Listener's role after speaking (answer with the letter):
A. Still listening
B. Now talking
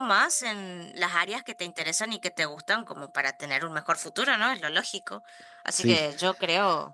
A